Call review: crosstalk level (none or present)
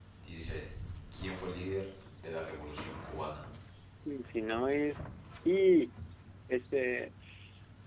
none